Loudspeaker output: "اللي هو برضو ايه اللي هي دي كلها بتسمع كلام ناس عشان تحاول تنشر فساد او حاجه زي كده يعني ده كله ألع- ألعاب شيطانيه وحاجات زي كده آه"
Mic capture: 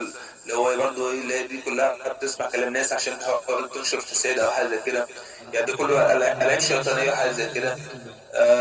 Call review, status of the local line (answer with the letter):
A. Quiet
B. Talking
B